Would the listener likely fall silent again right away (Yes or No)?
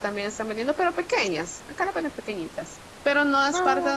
Yes